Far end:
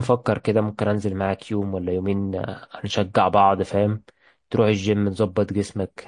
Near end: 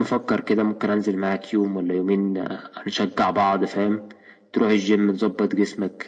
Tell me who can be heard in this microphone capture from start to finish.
echo only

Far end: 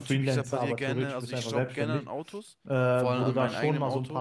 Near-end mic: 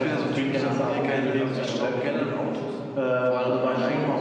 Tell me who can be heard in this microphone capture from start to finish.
both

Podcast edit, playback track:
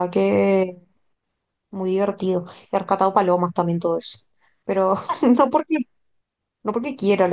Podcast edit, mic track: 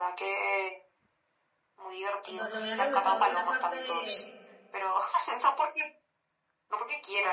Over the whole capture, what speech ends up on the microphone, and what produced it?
both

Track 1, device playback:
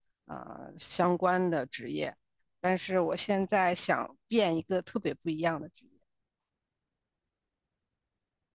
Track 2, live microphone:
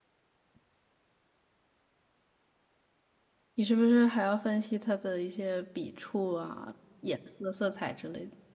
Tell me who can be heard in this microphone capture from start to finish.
user only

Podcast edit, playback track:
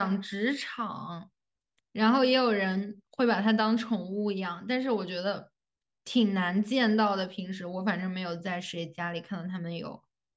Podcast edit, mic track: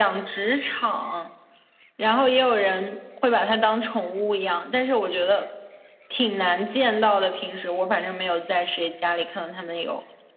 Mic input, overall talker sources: echo only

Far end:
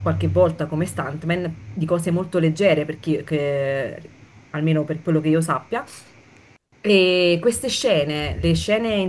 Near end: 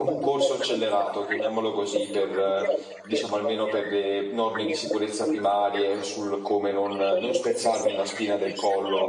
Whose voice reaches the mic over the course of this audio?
both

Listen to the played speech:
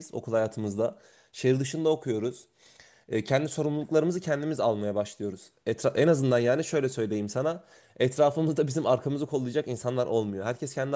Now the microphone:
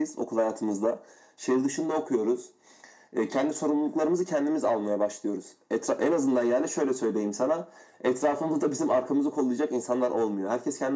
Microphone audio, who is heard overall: echo only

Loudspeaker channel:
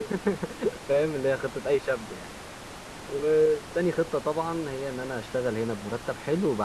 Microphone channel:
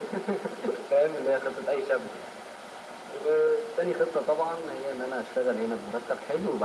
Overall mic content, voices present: echo only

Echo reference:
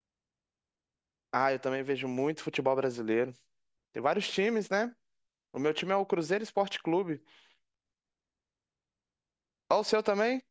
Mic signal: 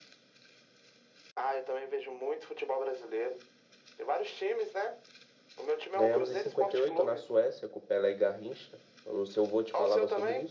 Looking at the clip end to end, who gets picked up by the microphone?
both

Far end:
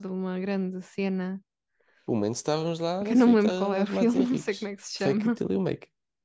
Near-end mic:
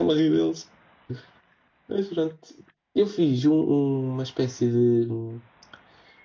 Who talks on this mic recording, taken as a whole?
user only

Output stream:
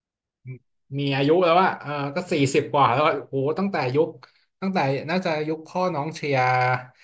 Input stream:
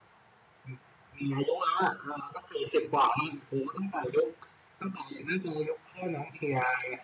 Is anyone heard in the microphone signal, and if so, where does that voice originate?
echo only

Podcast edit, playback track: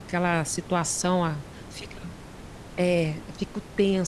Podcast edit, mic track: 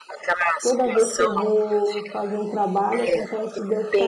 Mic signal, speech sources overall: both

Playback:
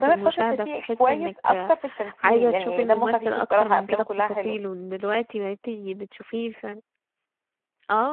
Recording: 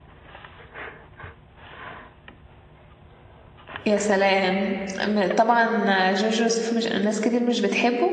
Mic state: user only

